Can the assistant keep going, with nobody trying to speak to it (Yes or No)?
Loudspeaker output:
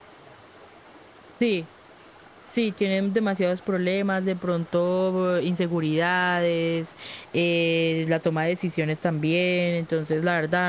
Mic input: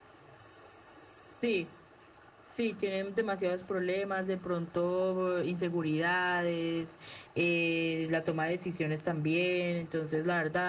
Yes